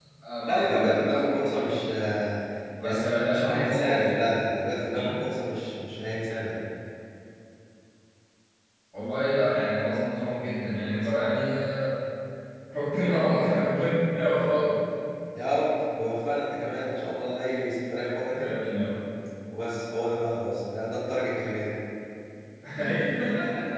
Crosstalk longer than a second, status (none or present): present